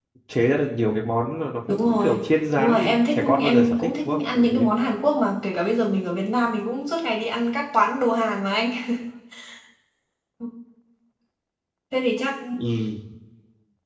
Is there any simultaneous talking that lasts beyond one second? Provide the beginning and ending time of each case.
2.6-4.5

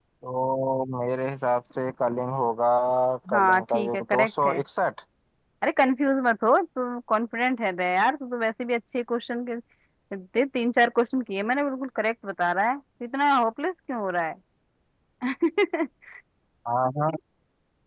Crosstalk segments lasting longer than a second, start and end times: 3.3-4.6

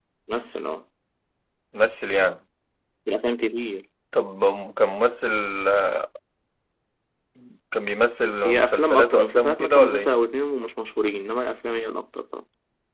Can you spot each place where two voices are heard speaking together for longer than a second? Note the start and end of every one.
8.4-10.2

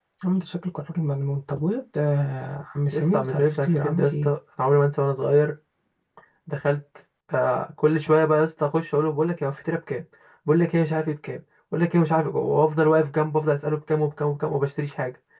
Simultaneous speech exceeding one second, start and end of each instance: 2.9-4.3

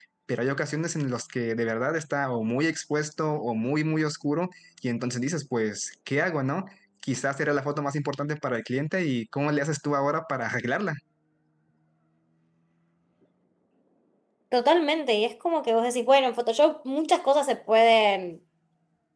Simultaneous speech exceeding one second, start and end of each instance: none

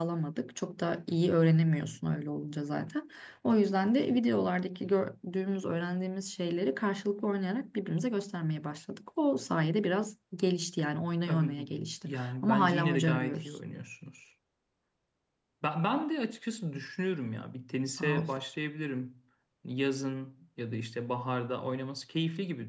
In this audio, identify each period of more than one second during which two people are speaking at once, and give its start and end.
12.1-13.6

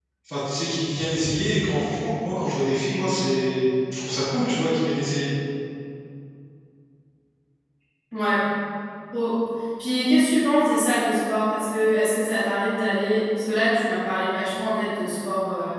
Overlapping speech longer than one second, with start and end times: none

